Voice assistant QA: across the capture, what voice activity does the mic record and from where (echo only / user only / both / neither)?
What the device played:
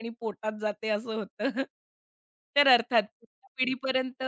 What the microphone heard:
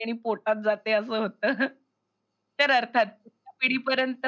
echo only